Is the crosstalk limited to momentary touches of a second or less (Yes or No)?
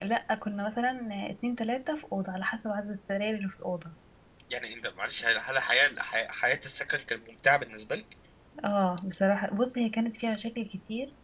Yes